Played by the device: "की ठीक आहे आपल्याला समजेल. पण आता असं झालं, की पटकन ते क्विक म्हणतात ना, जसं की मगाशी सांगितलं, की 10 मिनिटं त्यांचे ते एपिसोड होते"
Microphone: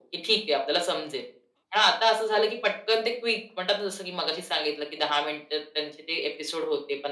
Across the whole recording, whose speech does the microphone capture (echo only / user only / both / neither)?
echo only